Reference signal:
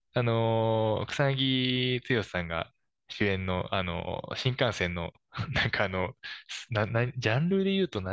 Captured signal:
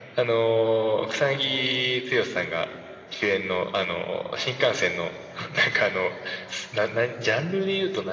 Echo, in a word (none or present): present